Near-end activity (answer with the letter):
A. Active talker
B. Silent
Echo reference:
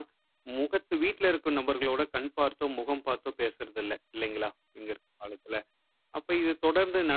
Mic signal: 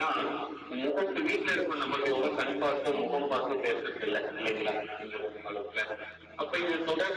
A